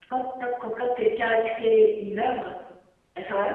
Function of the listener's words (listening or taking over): listening